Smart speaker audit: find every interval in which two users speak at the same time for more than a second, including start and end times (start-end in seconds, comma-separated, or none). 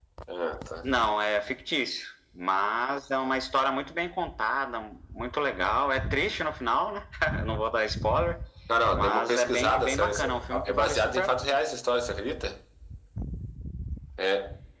8.9-11.6